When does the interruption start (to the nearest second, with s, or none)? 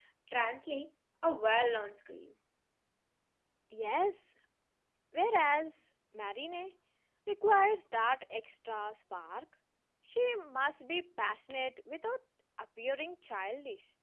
none